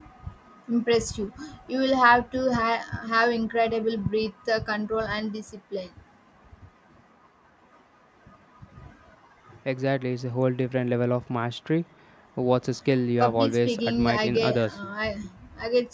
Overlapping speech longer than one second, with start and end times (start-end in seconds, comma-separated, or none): 13.2-14.8